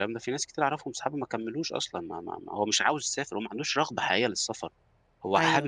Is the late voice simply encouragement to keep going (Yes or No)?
Yes